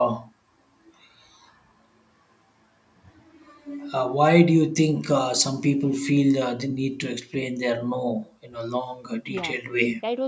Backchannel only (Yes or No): No